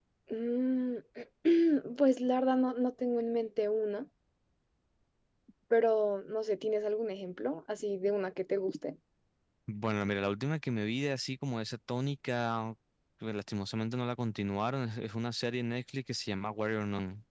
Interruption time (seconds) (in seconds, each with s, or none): none